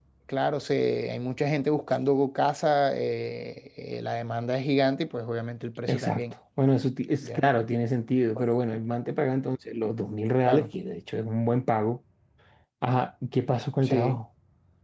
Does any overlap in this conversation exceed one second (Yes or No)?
No